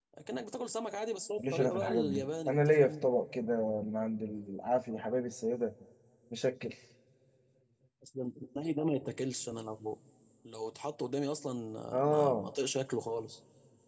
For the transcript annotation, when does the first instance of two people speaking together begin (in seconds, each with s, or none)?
1.5 s